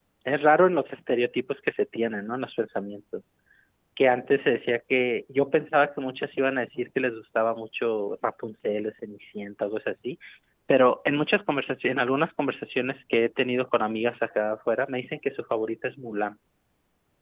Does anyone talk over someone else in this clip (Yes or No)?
No